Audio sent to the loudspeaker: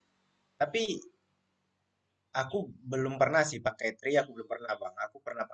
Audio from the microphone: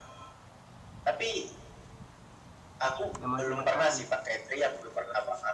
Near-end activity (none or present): present